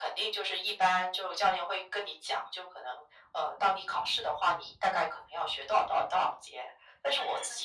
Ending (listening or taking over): listening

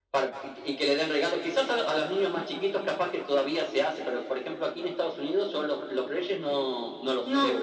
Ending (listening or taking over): taking over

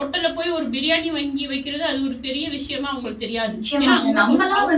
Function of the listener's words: taking over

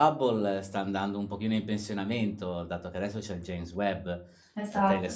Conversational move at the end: listening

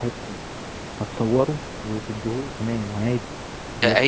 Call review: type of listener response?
taking over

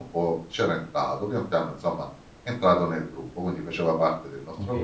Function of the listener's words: taking over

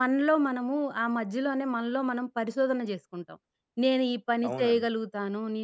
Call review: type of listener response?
listening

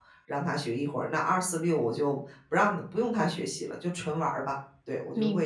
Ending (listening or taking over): taking over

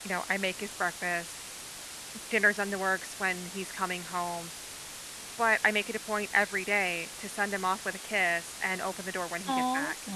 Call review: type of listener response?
taking over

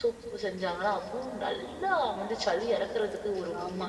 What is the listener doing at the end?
taking over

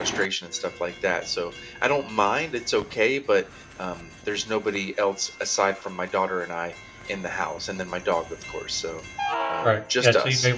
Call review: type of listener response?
taking over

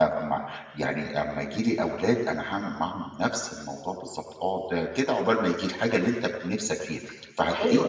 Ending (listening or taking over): taking over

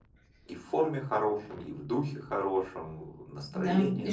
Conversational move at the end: taking over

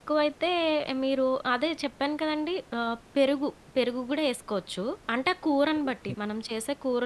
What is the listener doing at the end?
listening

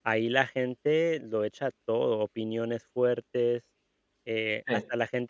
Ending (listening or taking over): listening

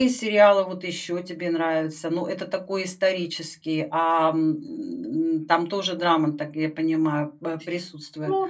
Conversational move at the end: taking over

